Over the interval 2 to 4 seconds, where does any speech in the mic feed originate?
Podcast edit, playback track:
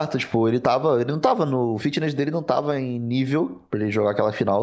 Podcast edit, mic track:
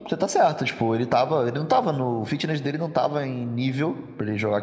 echo only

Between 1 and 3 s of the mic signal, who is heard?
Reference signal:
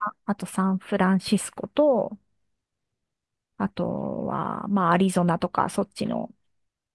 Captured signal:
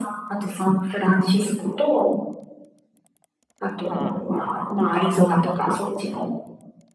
echo only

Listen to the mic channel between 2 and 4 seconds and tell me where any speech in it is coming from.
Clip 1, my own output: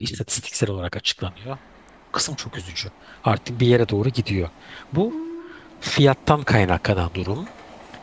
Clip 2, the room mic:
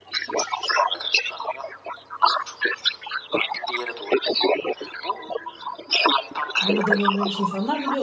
echo only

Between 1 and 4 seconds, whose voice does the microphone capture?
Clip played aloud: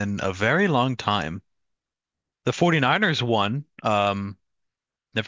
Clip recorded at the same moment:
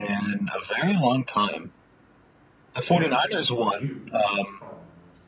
both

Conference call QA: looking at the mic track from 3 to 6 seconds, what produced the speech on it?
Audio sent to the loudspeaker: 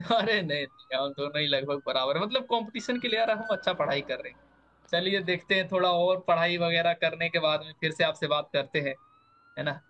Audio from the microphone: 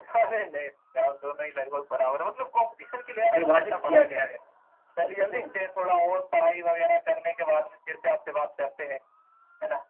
both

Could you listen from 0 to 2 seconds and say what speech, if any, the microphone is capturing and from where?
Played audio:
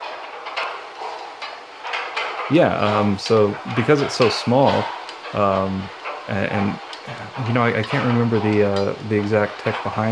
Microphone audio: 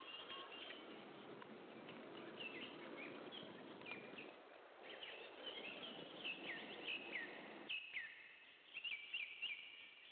neither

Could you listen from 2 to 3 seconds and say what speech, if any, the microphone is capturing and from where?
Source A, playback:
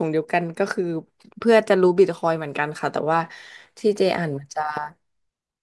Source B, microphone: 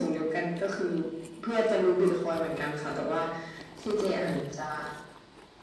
echo only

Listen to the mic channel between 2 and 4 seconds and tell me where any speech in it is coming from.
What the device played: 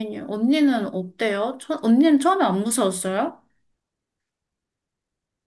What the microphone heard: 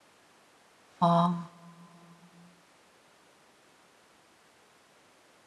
neither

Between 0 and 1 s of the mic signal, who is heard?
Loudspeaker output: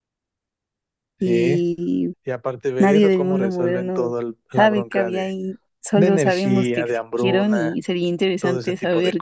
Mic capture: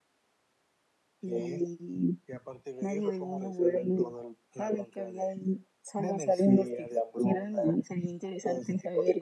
neither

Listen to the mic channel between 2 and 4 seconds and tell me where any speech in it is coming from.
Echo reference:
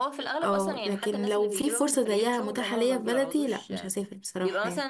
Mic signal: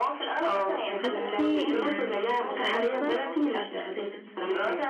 both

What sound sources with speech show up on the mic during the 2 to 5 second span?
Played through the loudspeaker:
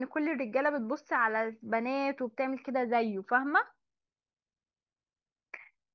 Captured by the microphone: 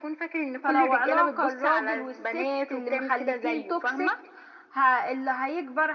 both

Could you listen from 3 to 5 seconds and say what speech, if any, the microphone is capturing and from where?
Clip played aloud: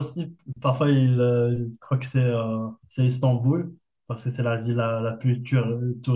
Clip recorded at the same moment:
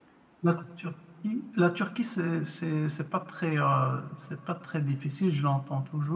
user only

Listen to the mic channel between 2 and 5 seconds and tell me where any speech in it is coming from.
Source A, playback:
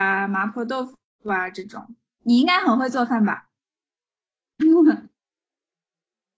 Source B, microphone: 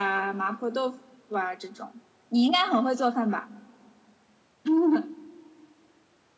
echo only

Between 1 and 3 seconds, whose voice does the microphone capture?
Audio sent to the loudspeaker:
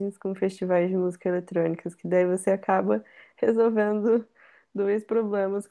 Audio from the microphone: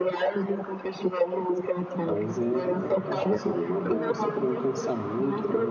both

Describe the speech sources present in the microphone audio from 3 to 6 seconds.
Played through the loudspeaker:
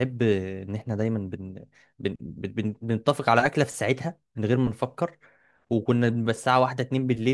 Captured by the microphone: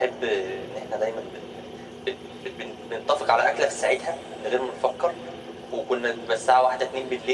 echo only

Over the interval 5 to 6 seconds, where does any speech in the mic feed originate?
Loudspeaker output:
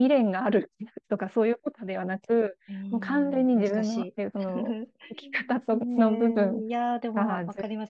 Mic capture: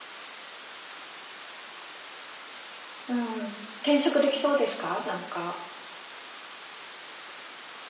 user only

